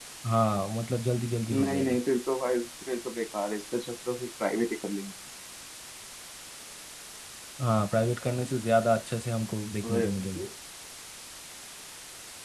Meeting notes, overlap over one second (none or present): none